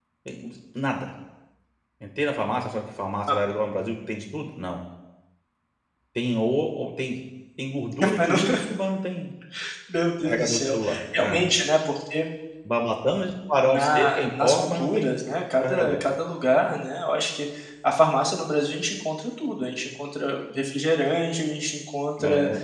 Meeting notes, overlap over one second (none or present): present